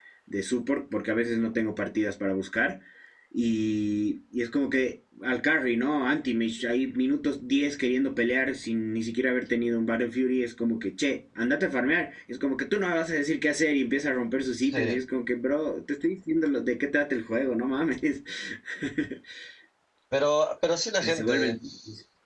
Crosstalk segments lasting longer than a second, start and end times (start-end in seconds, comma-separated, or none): none